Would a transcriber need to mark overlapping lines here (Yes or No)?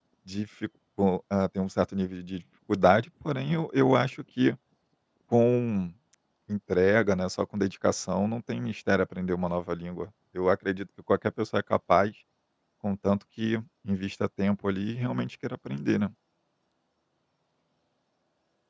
No